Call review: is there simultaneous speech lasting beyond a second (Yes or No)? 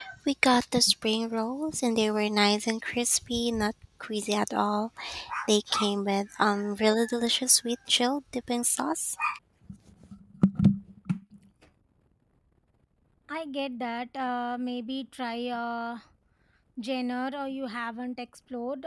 No